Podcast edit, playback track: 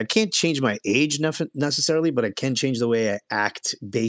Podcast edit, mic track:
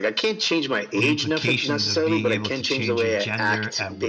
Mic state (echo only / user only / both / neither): both